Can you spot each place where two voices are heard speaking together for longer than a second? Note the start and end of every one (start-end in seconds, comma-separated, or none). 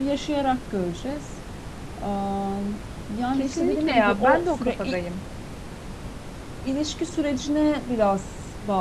3.3-4.8